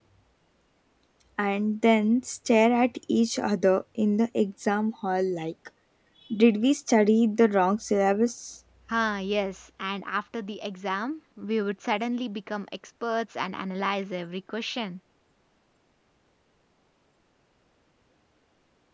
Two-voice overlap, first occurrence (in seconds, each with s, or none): none